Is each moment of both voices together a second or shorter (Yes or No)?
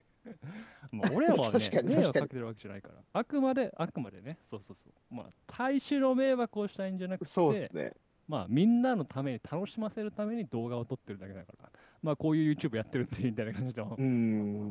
No